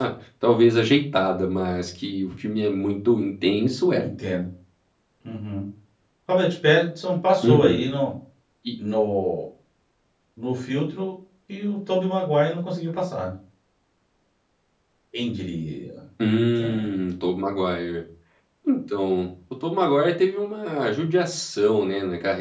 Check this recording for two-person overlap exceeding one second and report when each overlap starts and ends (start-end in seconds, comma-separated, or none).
none